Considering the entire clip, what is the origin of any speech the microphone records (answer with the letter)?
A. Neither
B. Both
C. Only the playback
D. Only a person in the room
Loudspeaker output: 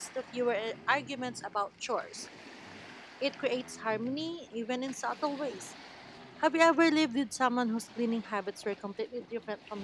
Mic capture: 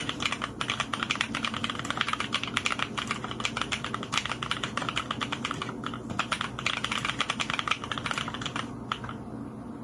A